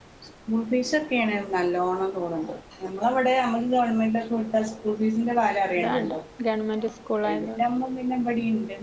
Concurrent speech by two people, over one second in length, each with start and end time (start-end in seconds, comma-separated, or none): none